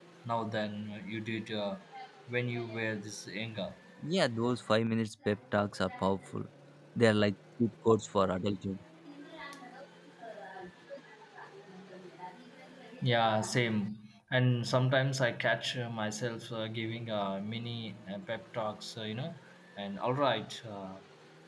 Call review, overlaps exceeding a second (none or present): none